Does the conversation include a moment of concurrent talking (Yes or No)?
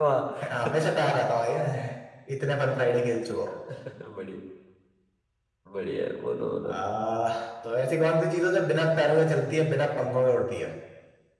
No